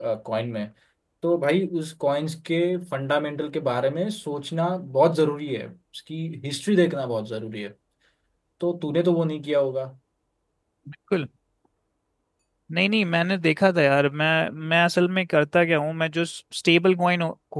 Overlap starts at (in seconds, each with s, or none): none